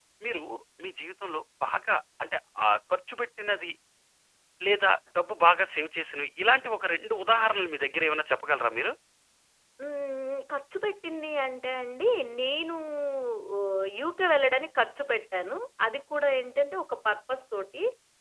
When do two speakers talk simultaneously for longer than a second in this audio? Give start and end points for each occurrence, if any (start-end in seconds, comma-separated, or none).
none